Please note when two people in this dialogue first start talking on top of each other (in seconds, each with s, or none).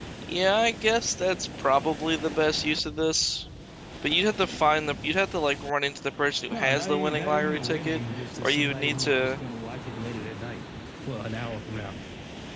6.5 s